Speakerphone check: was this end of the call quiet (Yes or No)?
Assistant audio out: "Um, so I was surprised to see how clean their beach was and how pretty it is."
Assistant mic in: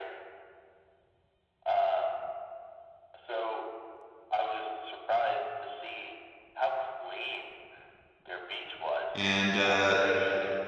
No